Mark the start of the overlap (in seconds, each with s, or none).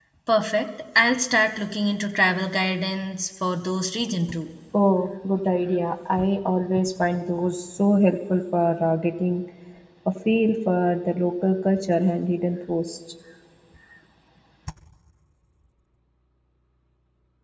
none